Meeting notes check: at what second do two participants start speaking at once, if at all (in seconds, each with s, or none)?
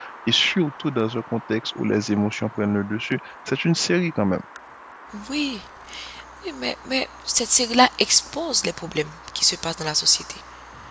none